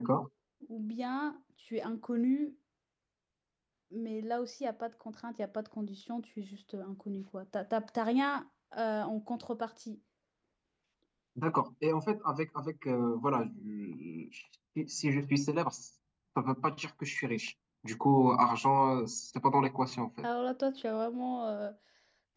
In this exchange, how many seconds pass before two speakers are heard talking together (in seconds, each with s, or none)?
none